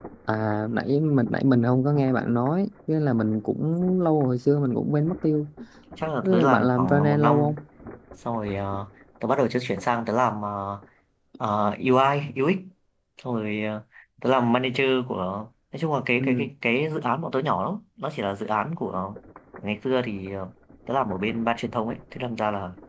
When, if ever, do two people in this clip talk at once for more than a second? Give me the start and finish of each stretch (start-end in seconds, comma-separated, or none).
6.2-7.5